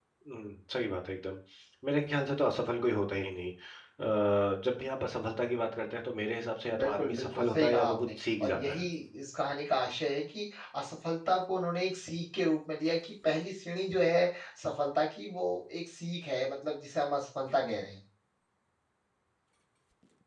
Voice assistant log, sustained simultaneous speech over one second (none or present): present